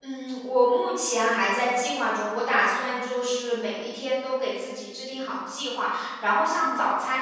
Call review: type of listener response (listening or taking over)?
listening